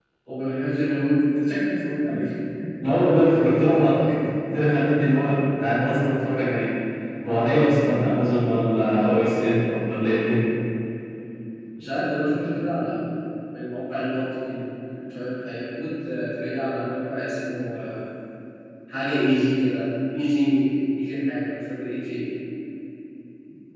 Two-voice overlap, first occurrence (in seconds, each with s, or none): none